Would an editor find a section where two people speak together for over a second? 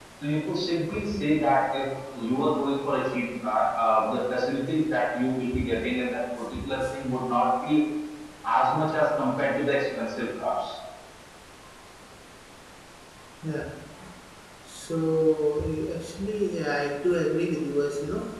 No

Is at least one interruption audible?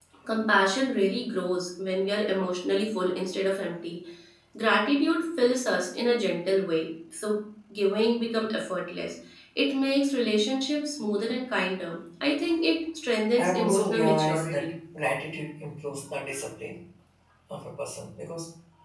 Yes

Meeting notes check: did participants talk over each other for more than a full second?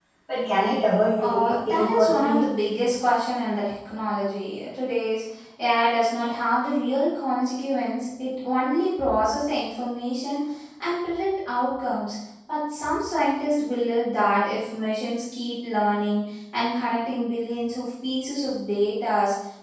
Yes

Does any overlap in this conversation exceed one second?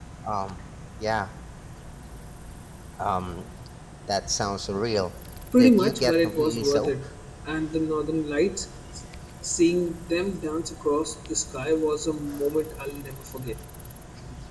Yes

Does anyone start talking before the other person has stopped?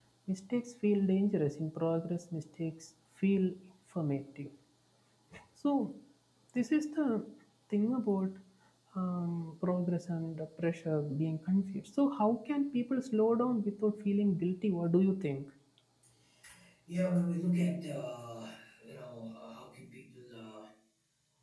No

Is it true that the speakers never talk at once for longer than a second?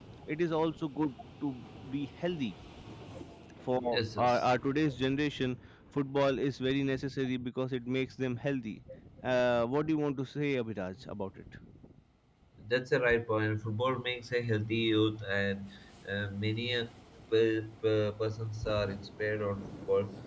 Yes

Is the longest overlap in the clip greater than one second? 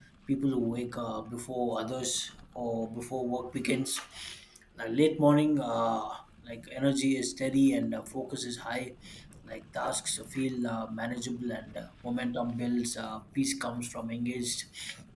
No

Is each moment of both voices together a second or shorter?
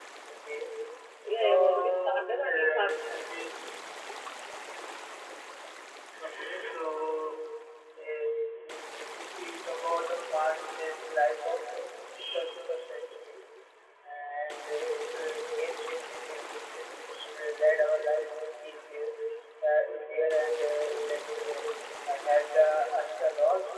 No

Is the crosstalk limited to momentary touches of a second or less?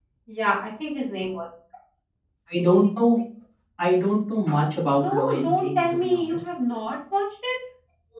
No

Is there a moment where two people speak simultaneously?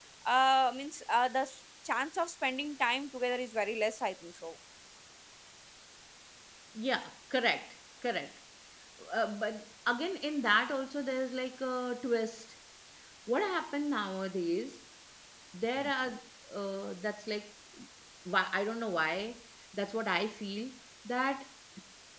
No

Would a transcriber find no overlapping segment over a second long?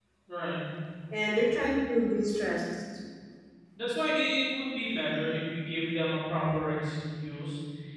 Yes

